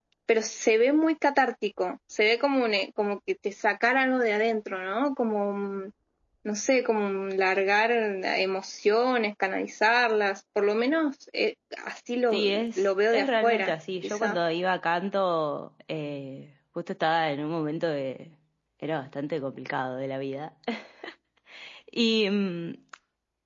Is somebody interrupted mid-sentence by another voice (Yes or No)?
Yes